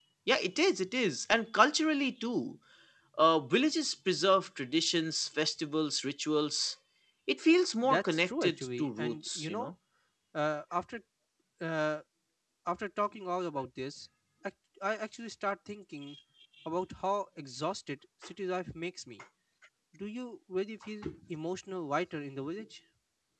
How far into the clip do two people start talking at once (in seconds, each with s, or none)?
7.8 s